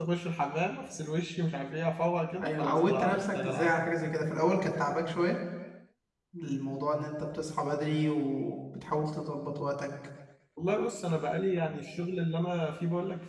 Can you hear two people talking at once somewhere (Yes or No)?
Yes